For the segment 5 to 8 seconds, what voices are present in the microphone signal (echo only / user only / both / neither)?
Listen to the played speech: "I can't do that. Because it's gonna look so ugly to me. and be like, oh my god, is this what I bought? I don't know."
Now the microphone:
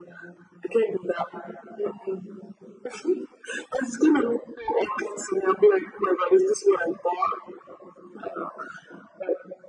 echo only